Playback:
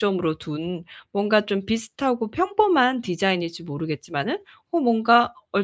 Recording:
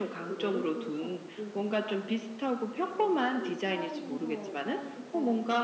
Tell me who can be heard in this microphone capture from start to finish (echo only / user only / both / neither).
both